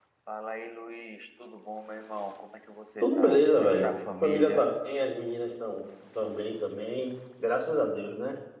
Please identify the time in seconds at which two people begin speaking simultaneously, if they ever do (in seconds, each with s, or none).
3.0 s